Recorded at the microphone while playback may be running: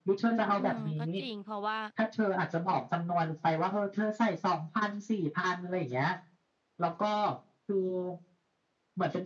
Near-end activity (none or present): present